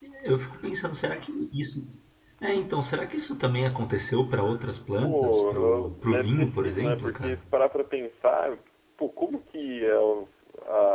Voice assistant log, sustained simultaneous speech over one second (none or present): present